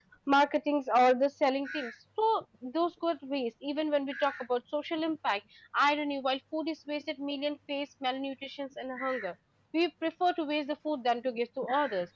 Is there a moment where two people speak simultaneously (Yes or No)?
No